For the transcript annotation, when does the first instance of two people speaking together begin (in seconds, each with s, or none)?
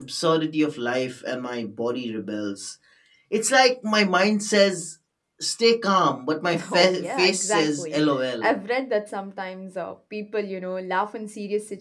6.5 s